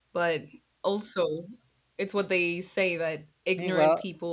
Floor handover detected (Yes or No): No